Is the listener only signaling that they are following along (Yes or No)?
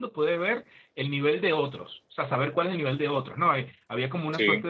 Yes